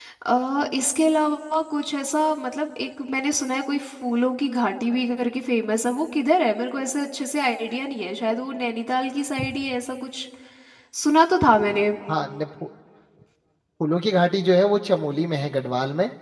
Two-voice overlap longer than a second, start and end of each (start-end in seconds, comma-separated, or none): none